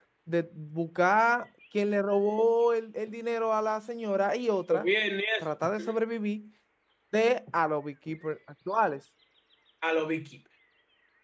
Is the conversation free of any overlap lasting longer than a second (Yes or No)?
Yes